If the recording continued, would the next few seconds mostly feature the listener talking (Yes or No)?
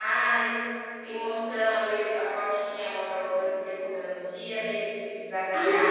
Yes